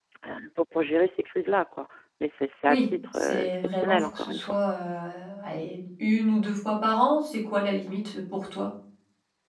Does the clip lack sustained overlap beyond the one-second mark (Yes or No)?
No